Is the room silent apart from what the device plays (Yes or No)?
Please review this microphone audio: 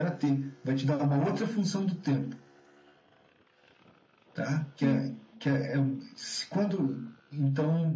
No